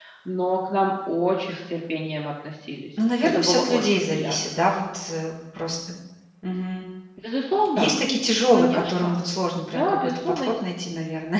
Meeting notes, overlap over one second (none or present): present